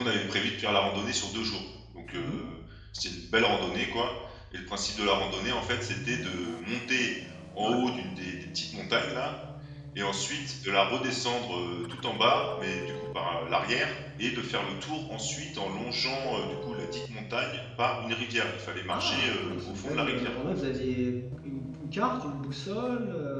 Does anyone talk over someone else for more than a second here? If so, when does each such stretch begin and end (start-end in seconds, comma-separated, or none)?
18.9-20.7